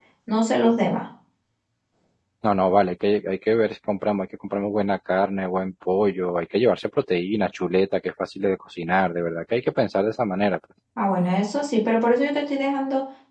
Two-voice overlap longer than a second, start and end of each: none

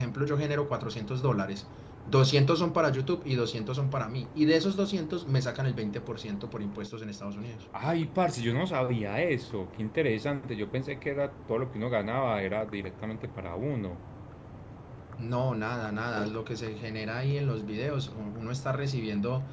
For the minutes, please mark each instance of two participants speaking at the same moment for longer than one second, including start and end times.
none

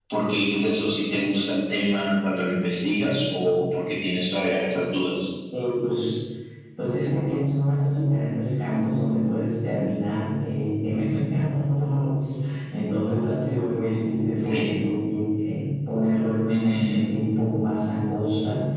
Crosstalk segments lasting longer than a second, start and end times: none

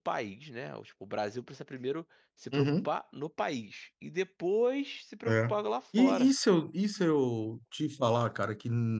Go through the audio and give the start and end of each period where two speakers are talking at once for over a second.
none

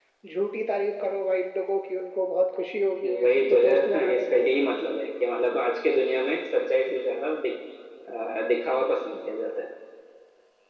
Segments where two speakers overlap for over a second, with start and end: 3.0-4.4

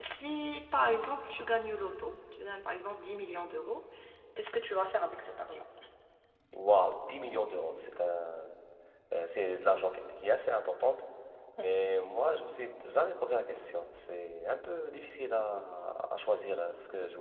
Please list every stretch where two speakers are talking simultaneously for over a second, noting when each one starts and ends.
none

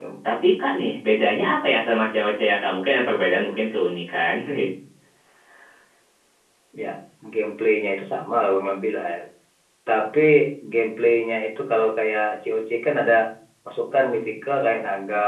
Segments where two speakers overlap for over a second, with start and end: none

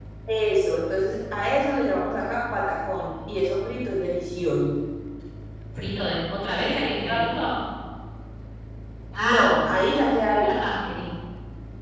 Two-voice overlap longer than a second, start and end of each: none

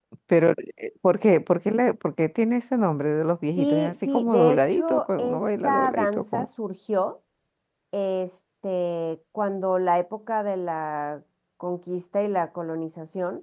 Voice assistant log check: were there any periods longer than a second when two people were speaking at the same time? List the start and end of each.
3.6-6.4

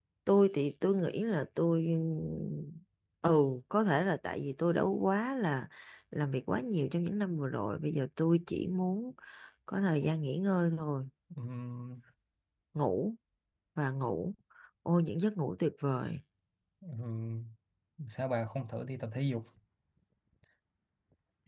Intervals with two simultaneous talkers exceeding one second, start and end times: none

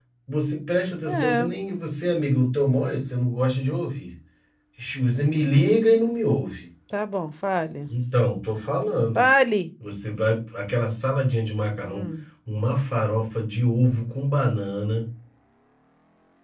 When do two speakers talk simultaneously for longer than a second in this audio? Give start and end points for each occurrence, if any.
none

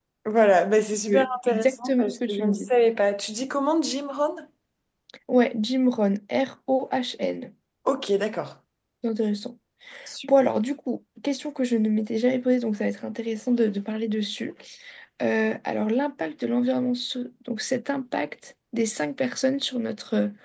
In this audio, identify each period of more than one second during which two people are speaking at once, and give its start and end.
1.1-2.7

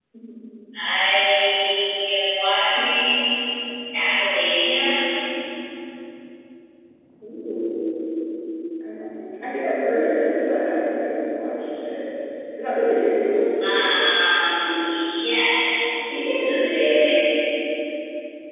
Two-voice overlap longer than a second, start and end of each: none

